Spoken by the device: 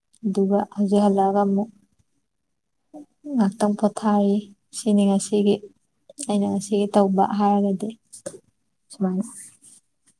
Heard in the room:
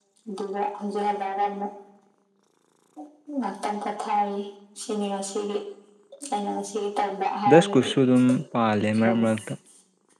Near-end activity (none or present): present